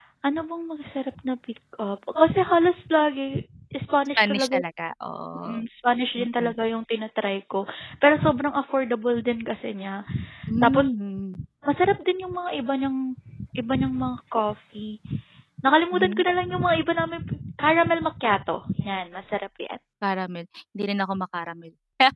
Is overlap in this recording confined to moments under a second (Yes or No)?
Yes